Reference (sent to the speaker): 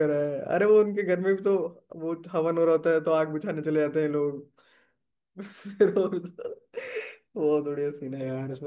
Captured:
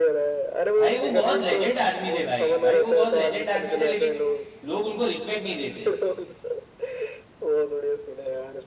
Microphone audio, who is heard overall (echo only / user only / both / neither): both